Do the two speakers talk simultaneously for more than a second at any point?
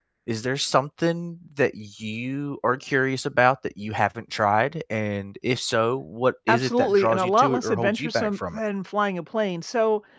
Yes, from 6.5 s

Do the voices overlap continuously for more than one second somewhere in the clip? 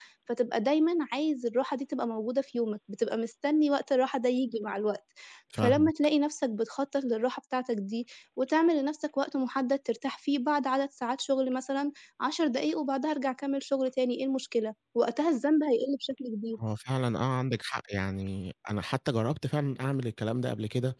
No

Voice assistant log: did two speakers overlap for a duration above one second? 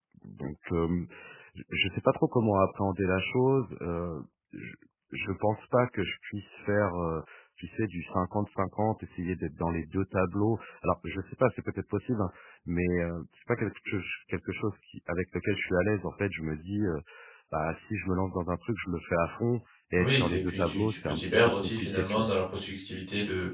Yes, from 20.0 s

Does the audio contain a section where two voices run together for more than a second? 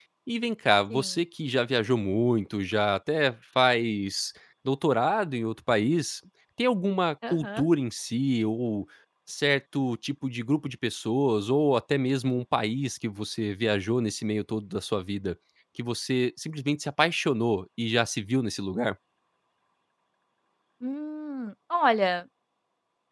No

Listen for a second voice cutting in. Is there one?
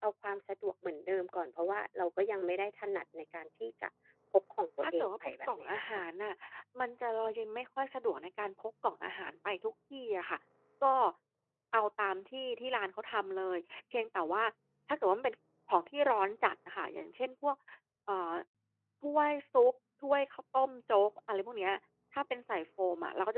Yes, from 4.8 s

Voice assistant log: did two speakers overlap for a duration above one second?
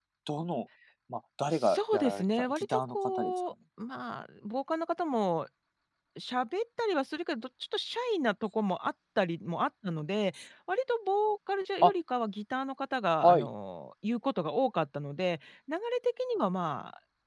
Yes, from 1.5 s

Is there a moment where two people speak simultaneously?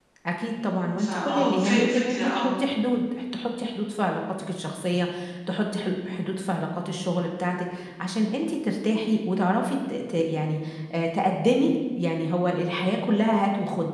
Yes, from 1.0 s

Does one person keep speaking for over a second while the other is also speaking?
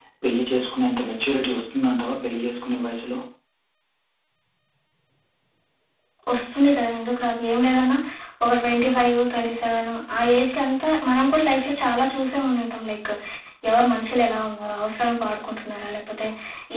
No

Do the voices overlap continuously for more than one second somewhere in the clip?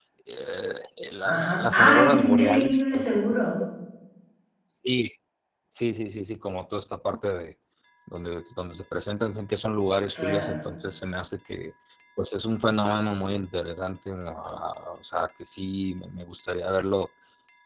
Yes, from 1.2 s

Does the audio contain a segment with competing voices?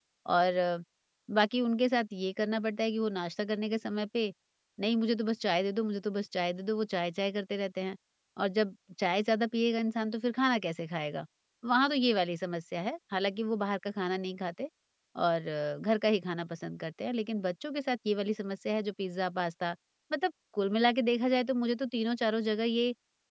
No

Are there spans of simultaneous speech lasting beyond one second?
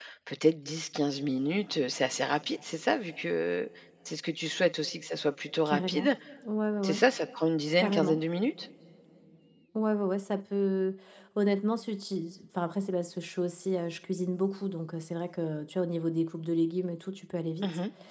No

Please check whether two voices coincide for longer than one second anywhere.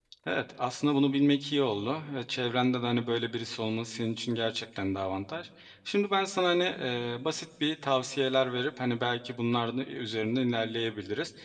No

